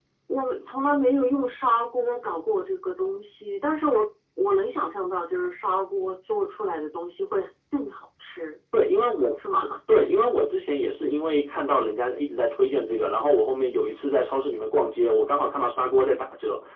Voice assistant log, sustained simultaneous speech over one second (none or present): none